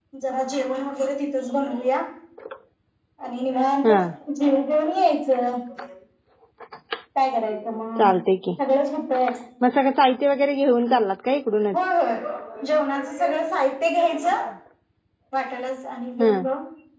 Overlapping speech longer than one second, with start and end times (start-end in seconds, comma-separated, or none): none